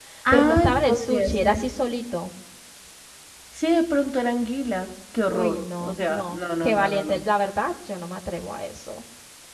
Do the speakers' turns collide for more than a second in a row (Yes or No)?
Yes